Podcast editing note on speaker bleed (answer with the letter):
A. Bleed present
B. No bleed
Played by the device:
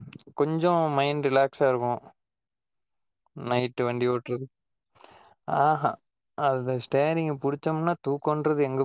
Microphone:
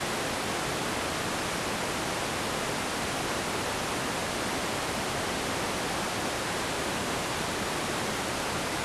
B